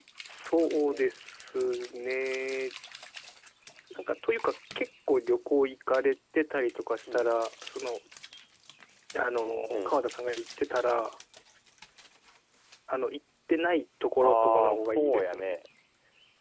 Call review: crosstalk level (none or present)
present